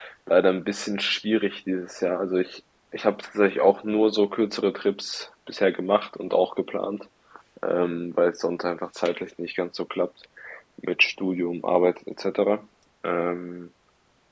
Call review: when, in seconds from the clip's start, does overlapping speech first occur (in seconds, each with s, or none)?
none